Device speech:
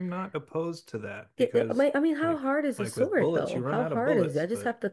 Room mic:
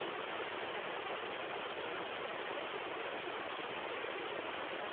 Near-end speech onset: none

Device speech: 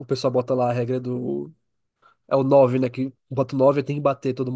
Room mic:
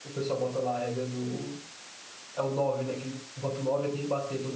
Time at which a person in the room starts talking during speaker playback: none

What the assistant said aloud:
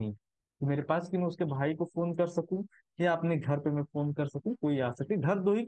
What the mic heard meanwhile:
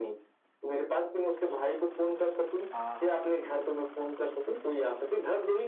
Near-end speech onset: 3 s

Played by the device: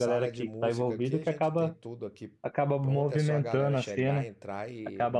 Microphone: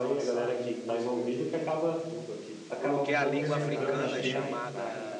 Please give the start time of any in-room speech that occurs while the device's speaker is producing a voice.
3 s

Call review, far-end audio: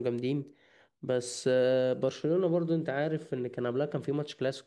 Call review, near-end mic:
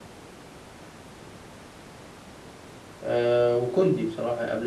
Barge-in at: 3 s

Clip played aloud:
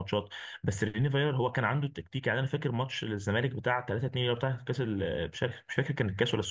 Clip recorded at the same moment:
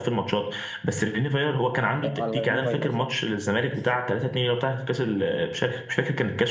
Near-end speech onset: 2 s

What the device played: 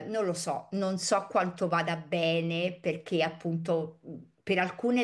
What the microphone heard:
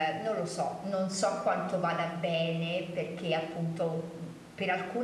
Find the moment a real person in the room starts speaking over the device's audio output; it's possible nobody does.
none

